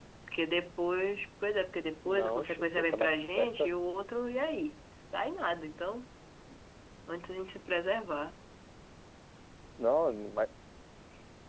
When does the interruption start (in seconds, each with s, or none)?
2.0 s